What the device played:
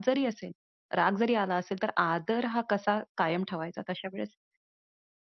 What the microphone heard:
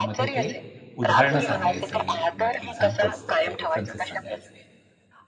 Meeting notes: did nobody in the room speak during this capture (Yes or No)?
No